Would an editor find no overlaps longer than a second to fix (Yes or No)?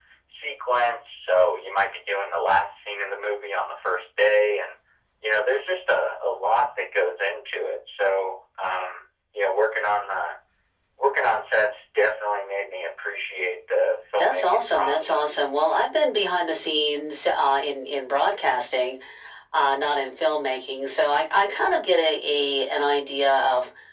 No